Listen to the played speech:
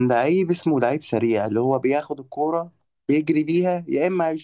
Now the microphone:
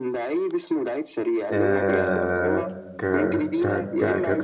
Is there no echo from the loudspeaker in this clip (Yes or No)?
No